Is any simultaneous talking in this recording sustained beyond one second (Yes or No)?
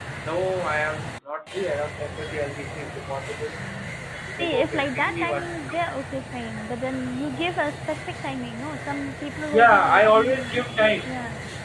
Yes